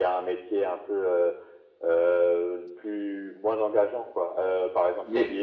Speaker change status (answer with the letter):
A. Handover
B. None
B